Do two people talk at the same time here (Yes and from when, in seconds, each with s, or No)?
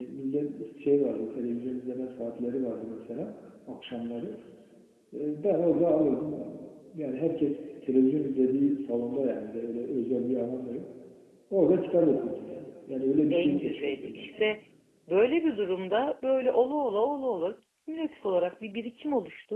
Yes, from 13.3 s